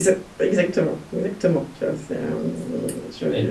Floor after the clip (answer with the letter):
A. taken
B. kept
A